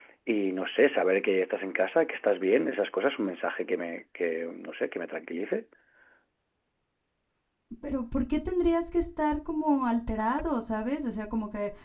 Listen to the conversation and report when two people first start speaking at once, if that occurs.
none

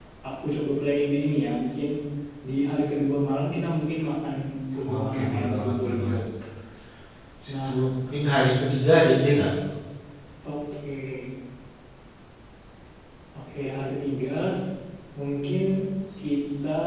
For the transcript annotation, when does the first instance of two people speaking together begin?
5 s

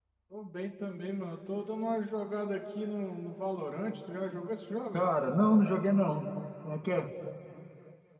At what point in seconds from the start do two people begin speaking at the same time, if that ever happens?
none

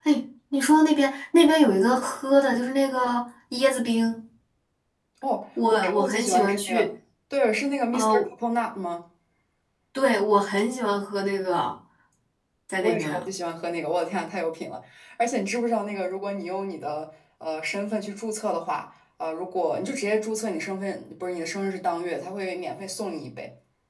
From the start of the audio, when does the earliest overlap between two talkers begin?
6 s

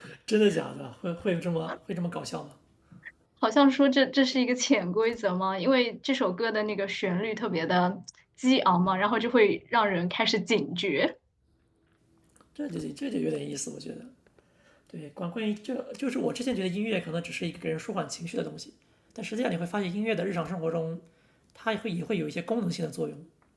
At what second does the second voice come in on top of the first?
none

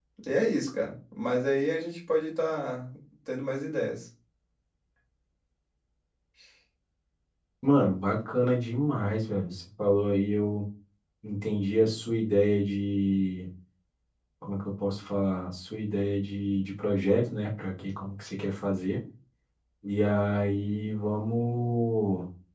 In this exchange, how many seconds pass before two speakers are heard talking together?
none

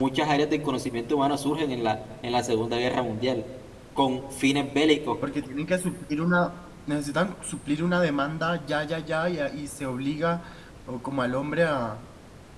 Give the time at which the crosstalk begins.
none

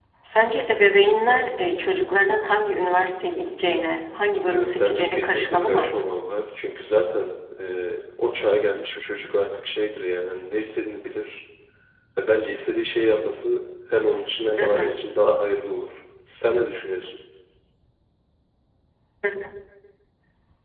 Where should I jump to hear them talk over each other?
4 s

